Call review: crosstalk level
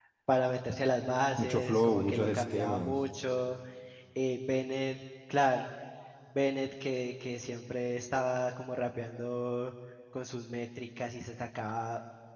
present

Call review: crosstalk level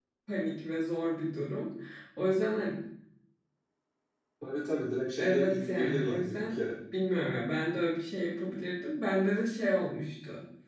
present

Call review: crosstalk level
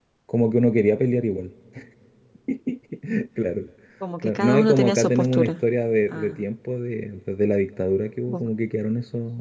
present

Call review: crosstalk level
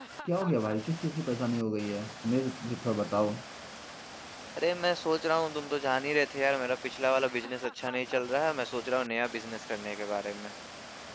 none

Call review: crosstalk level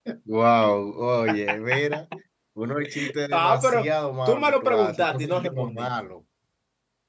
present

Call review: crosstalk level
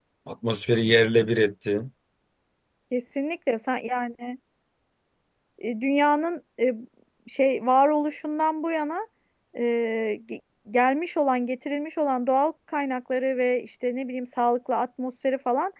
none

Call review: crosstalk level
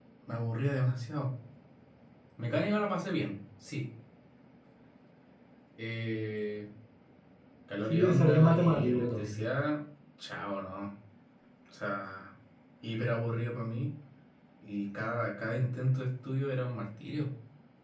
present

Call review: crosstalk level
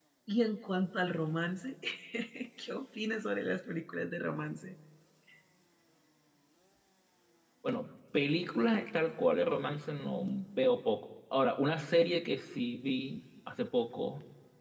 none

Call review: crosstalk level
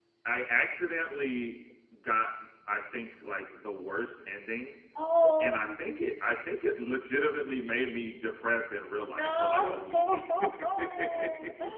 present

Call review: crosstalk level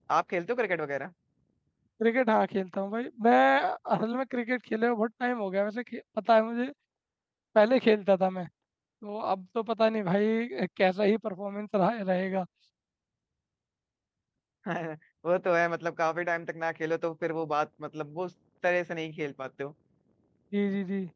none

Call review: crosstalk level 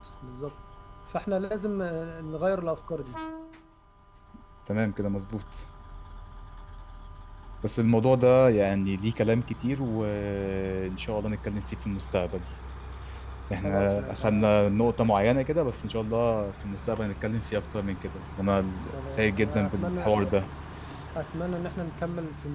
present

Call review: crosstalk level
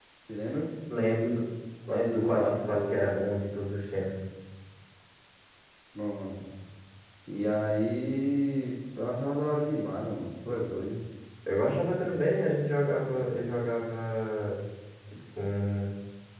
present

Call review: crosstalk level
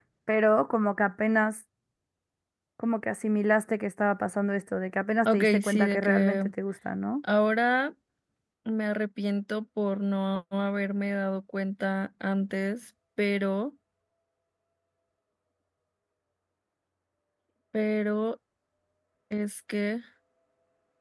present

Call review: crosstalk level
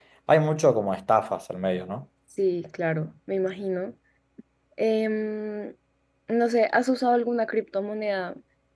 none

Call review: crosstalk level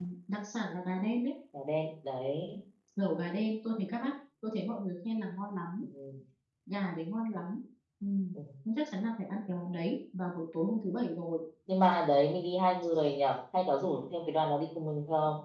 none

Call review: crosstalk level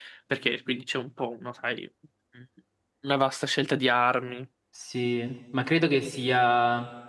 none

